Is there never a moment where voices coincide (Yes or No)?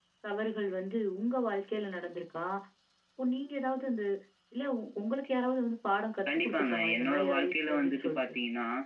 No